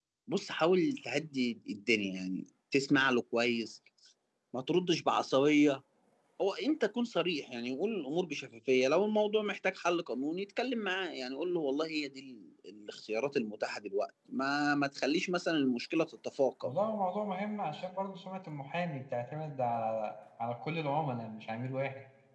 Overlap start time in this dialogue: none

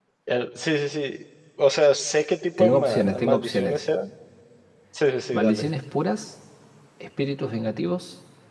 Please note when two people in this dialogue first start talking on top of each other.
2.6 s

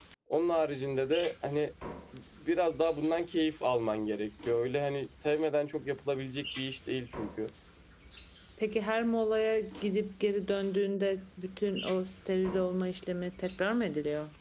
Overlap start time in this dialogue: none

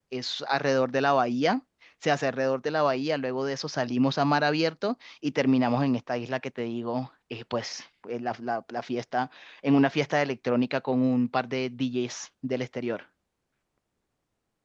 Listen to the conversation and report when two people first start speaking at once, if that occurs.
none

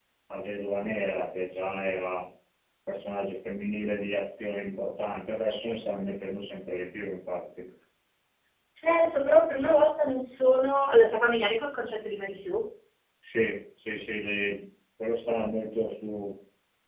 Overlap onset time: none

